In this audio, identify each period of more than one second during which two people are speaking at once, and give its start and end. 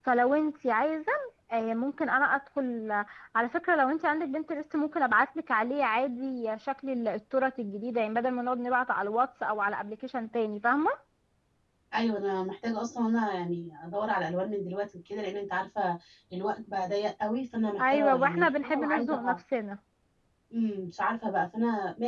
17.8-19.4

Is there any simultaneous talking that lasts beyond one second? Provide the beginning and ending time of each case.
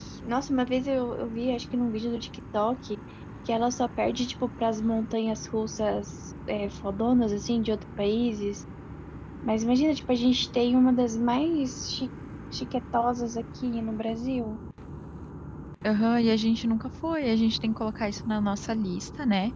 none

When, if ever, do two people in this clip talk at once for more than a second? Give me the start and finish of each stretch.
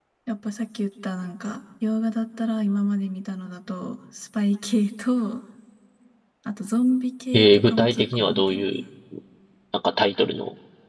7.3-8.7

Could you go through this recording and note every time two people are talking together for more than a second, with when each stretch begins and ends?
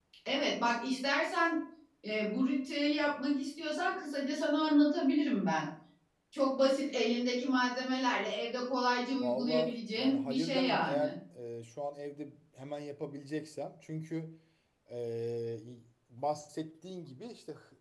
9.2-11.1

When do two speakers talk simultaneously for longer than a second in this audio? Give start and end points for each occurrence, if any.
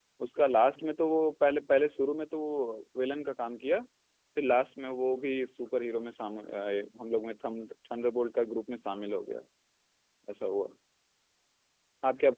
none

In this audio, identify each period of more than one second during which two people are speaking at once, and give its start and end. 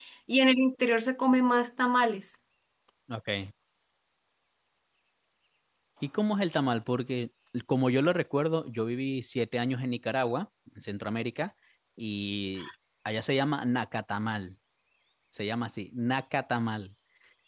none

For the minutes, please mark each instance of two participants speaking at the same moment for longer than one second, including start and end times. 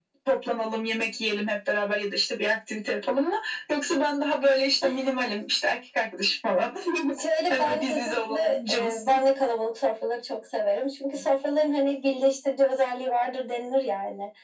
7.5-9.2

